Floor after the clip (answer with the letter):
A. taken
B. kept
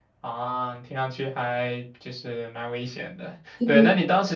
B